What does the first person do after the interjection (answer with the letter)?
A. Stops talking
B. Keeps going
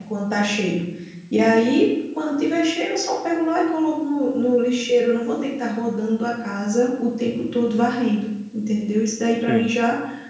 B